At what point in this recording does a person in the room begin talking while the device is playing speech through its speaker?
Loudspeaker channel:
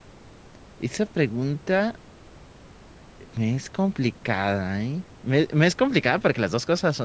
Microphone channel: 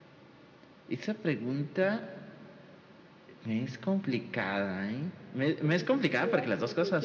6 s

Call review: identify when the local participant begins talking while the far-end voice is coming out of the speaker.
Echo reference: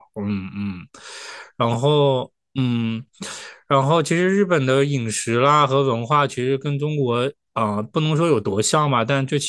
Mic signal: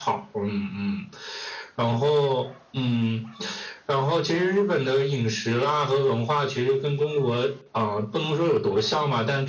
none

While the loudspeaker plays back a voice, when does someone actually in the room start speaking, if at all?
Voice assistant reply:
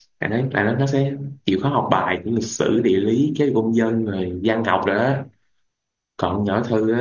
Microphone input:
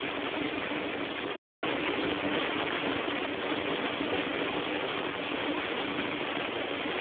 none

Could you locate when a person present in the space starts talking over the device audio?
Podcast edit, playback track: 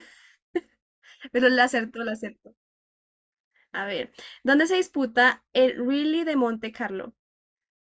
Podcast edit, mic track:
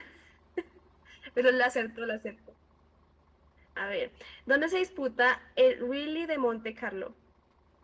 none

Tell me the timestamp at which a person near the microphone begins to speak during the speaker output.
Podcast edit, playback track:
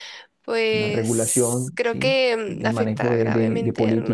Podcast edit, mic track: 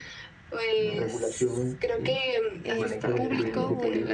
3 s

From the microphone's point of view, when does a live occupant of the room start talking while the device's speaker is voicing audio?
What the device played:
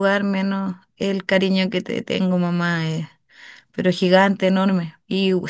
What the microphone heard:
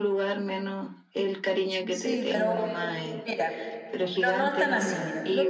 2 s

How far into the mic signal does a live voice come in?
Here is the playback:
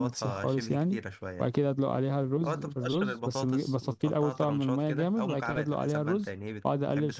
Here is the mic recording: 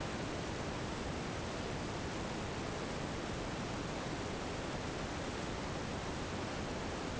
none

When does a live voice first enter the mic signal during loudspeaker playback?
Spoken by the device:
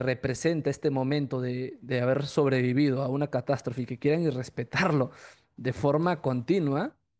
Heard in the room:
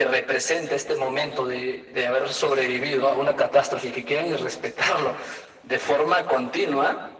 none

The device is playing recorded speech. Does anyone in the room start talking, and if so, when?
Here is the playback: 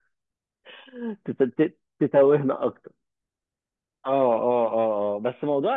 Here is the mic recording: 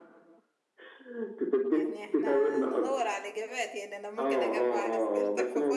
2 s

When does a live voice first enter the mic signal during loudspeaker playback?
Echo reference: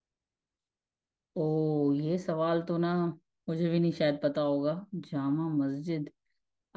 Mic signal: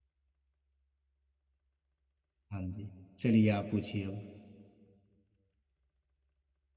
3 s

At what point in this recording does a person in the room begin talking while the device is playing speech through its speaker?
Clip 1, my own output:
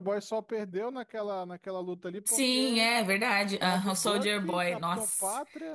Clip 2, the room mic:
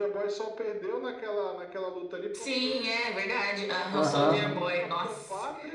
4 s

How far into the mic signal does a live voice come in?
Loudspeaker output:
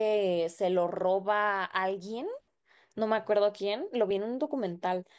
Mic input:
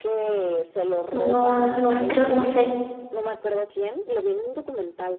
1 s

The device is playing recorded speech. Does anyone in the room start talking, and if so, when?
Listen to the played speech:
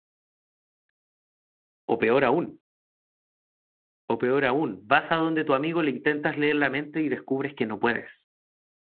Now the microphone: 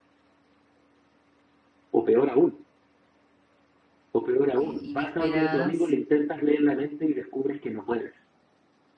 5 s

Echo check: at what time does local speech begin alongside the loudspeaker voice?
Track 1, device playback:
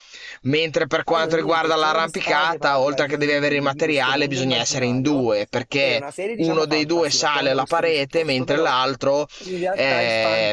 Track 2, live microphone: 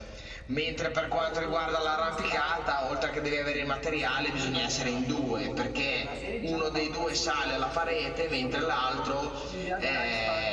none

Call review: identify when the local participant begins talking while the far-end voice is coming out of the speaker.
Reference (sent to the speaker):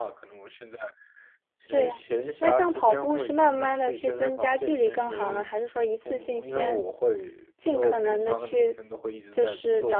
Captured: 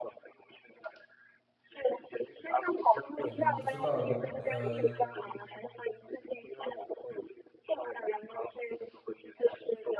3 s

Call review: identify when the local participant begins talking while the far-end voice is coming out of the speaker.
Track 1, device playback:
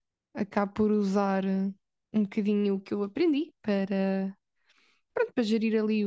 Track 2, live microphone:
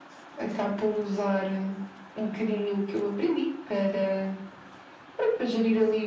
none

